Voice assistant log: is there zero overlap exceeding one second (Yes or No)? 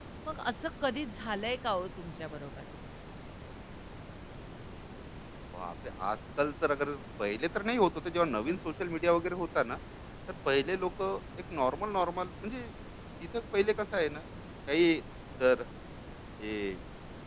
Yes